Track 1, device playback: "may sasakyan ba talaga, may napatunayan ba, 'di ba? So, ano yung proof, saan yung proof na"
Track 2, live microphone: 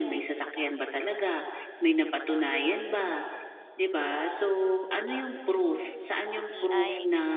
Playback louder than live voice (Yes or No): Yes